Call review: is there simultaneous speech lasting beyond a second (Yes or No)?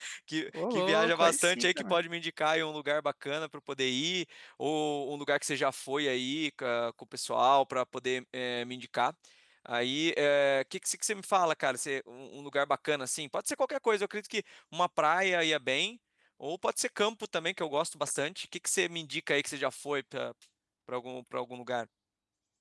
Yes